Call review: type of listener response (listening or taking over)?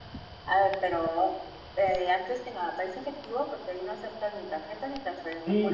taking over